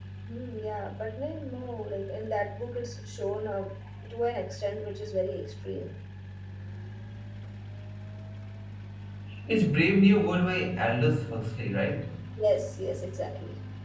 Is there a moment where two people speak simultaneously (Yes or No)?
No